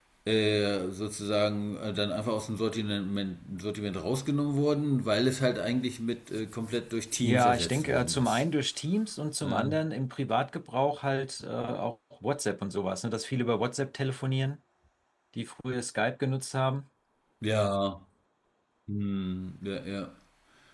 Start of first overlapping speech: 7.2 s

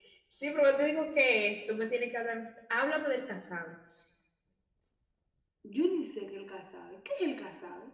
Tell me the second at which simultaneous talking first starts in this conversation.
none

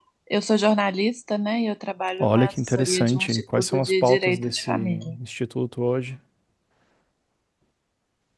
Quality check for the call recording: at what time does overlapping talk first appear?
2.2 s

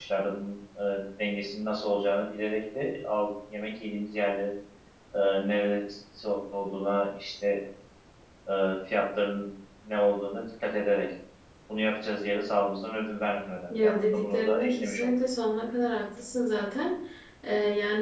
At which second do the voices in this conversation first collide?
13.7 s

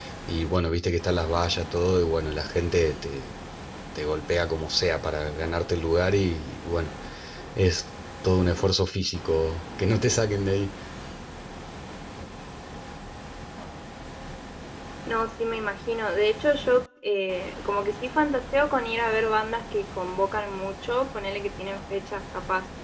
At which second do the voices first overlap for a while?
none

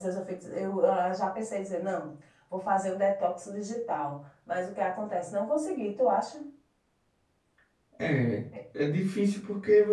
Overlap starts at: none

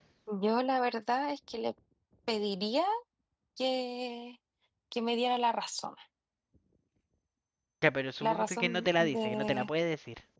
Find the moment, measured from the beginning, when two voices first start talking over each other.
8.2 s

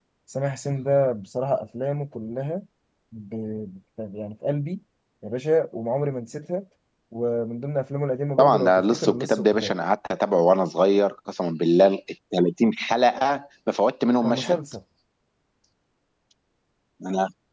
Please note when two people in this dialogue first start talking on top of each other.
8.4 s

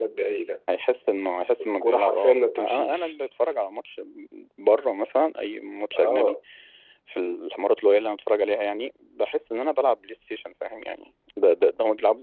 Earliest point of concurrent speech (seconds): 1.8 s

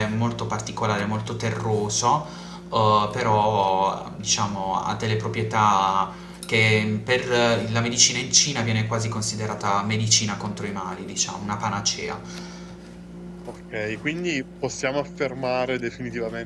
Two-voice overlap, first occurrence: none

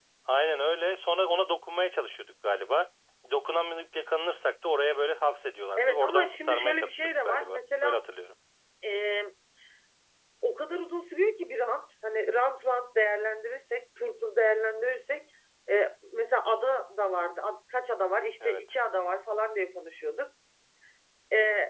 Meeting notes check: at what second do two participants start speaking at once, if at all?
5.8 s

